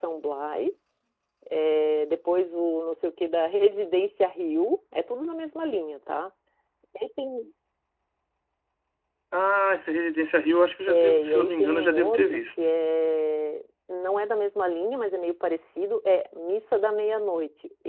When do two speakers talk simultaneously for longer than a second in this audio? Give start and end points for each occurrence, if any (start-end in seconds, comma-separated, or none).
10.9-12.4